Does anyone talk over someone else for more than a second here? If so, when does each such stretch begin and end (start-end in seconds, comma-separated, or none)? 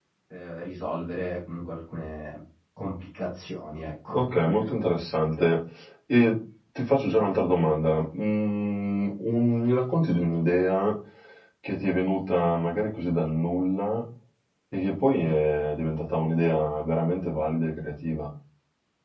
none